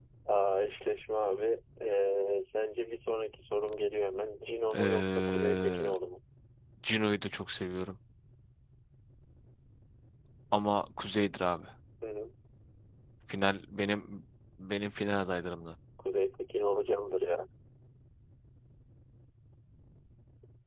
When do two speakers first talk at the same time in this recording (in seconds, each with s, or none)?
4.7 s